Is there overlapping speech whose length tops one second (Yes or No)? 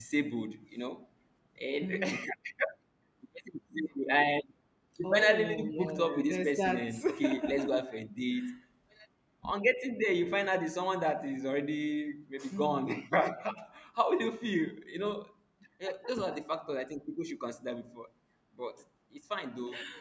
Yes